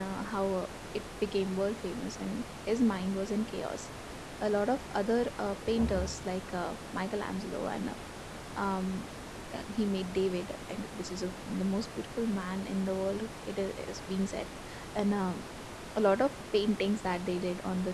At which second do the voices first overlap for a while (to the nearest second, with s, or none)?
none